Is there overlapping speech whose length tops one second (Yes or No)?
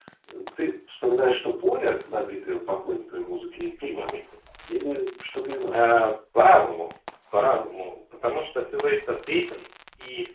No